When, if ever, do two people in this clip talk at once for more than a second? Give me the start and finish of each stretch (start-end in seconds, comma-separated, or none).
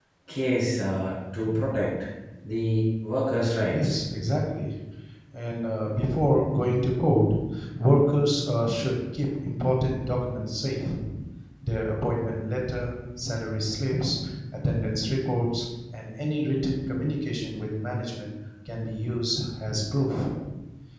none